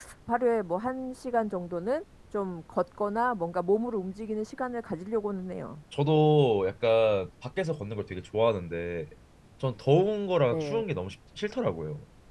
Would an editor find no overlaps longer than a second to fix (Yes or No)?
Yes